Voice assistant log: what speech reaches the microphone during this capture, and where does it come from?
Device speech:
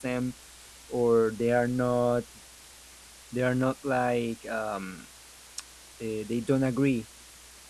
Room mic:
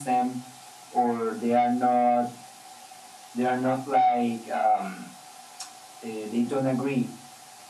echo only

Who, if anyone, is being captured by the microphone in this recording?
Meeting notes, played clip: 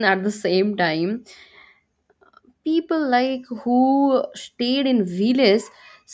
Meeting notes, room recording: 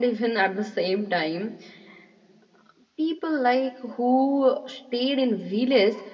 echo only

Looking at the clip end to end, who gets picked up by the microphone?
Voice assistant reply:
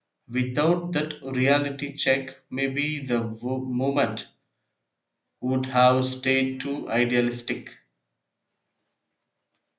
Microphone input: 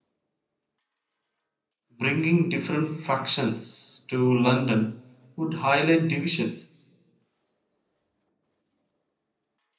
user only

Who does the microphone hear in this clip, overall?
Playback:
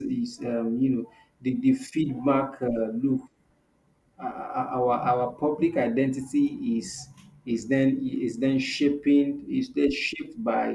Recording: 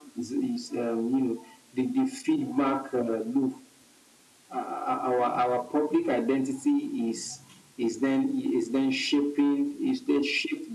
echo only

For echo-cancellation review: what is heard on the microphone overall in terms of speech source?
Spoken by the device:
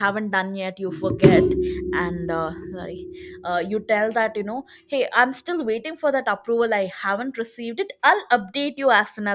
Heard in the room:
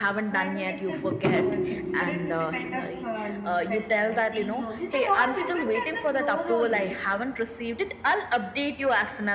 both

